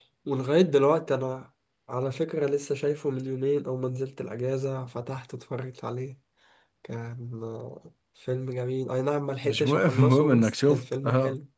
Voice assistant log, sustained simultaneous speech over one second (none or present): present